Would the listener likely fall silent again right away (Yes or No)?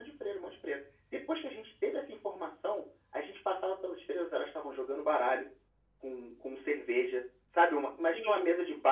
Yes